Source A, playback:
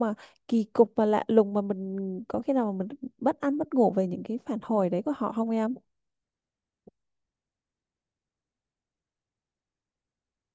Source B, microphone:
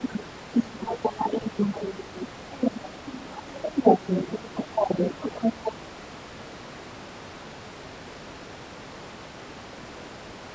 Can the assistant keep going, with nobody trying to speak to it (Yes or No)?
Yes